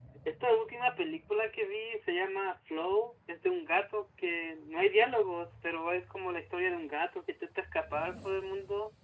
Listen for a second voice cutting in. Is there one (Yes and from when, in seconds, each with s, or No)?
No